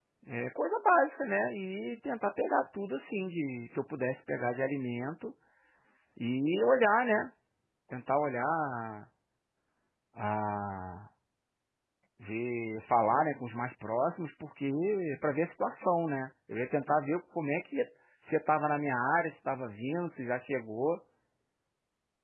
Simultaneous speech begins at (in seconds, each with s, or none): none